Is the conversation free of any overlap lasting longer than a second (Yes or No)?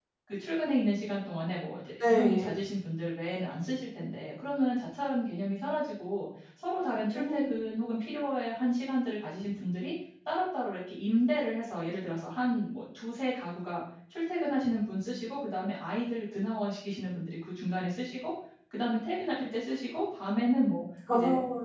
Yes